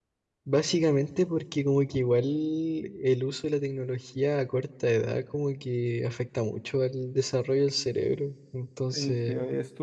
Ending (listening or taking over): taking over